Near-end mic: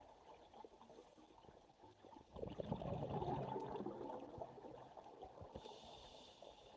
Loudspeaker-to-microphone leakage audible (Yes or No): No